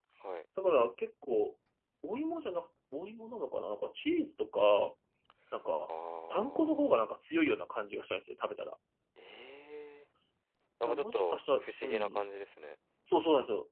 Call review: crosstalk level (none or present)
present